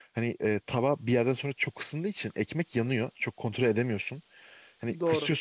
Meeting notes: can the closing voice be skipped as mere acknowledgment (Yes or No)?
Yes